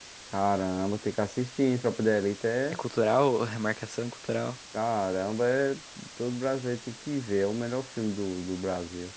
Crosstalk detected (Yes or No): No